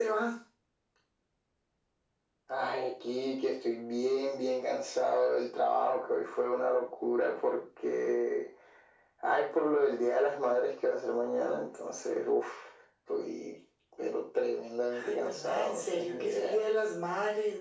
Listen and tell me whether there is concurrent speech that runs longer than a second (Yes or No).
Yes